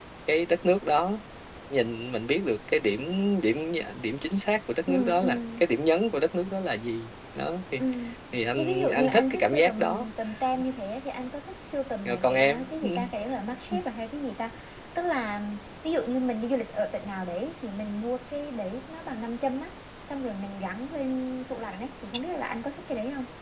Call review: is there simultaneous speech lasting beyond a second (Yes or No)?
Yes